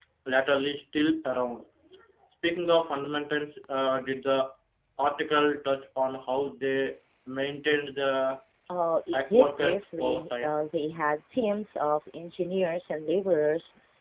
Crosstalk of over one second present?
Yes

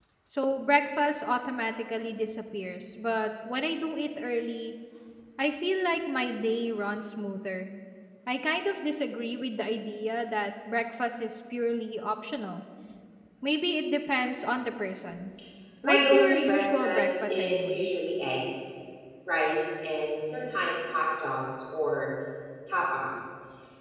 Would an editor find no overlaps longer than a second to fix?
No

